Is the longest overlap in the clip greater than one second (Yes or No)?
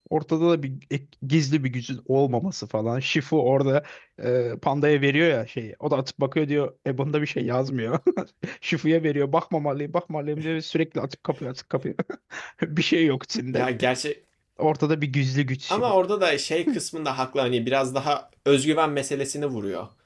No